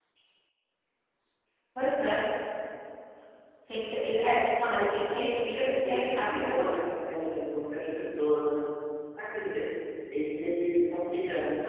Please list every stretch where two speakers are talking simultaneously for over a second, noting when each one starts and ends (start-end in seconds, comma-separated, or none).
5.5-6.8